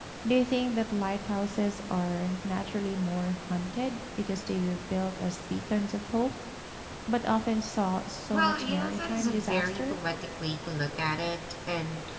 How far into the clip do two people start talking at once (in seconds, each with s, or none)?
8.3 s